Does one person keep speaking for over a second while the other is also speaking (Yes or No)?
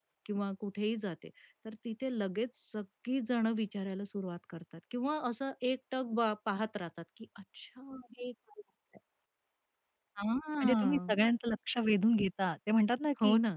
No